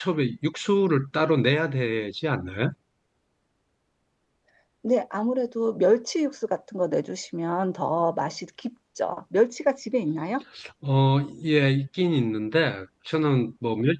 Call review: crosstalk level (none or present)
none